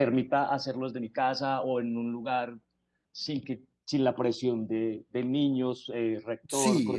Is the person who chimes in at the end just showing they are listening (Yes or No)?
No